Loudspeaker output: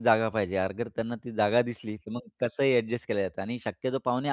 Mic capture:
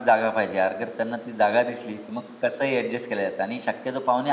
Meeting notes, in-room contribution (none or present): none